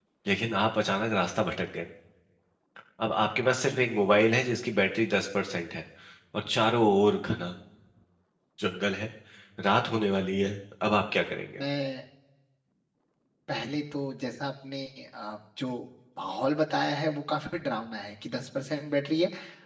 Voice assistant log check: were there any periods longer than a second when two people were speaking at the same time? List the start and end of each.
none

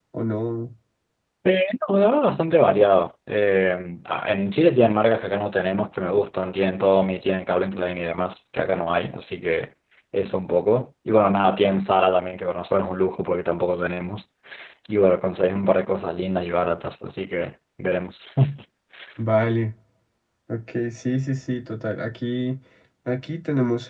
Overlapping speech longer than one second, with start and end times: none

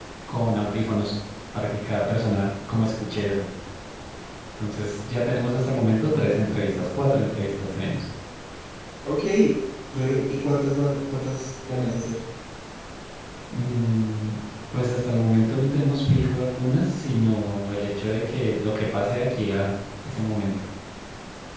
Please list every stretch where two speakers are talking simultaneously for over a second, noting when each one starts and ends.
none

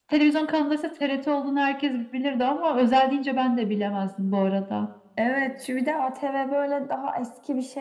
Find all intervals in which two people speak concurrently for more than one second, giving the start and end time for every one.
none

